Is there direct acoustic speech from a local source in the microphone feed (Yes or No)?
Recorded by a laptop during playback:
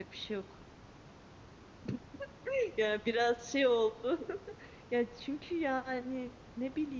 Yes